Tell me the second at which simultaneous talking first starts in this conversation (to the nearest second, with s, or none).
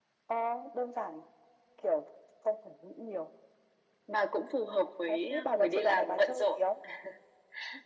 5 s